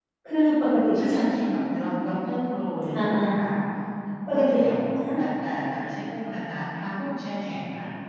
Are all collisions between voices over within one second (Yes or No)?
Yes